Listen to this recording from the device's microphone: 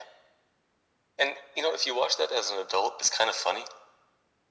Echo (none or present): present